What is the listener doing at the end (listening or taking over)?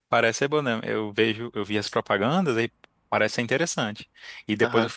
listening